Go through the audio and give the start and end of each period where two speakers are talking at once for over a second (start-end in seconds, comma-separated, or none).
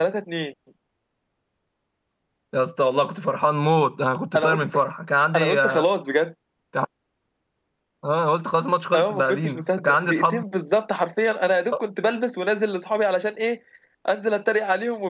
8.9-10.4